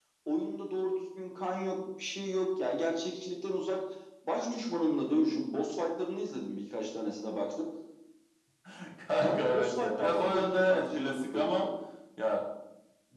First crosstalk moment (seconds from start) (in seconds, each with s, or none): 9.2 s